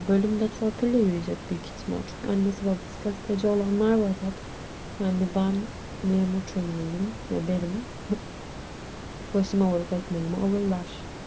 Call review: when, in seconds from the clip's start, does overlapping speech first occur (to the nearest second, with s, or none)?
none